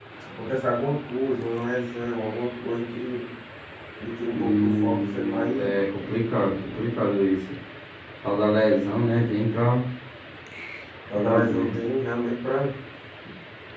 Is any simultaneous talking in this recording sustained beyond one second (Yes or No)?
Yes